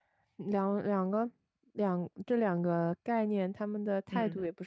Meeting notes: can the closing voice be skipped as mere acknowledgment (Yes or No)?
Yes